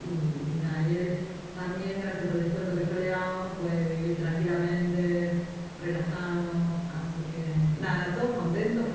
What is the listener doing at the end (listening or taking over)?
listening